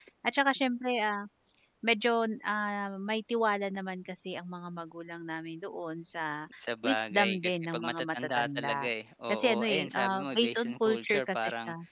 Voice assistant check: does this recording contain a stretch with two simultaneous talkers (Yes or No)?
Yes